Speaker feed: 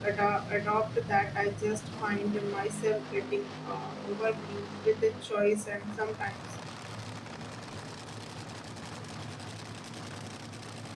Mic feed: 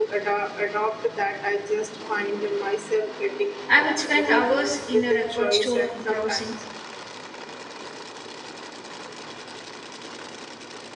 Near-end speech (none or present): present